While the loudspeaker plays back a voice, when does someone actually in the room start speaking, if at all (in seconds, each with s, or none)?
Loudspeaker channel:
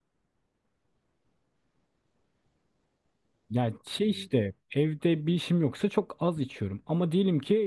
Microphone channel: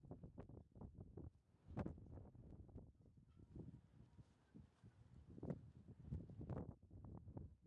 none